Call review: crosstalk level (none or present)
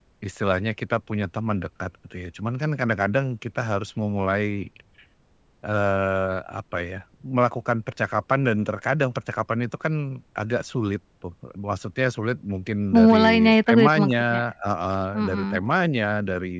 present